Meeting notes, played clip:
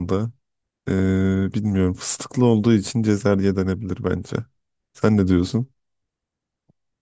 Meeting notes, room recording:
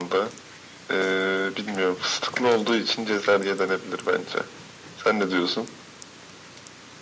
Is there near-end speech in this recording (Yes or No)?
No